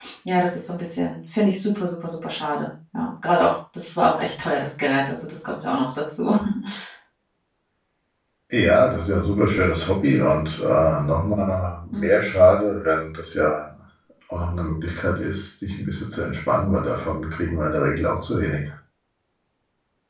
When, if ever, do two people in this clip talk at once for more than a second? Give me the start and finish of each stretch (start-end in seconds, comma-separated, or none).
none